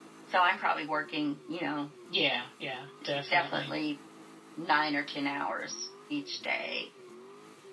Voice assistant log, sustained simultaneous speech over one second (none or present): none